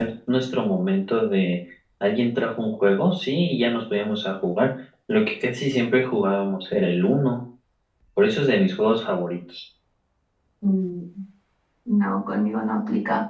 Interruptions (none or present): none